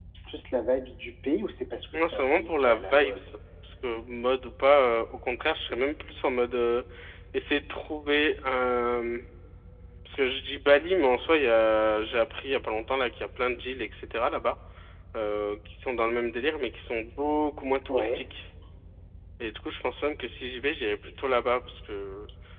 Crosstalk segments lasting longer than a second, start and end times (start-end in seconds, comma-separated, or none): 1.9-3.2